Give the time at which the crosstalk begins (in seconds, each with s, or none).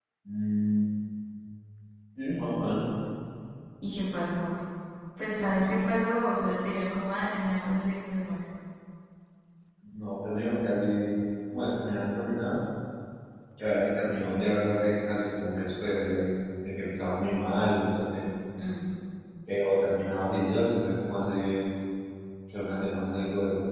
none